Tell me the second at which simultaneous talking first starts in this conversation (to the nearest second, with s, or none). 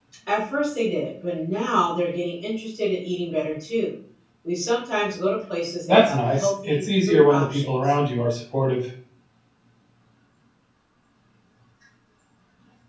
6 s